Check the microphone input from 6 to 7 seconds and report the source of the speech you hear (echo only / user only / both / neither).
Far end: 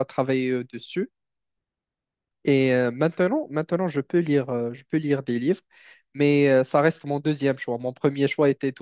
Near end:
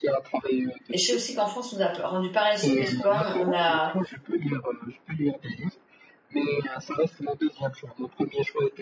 echo only